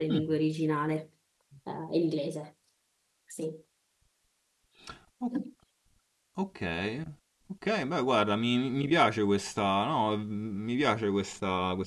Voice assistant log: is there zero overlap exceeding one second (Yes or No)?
Yes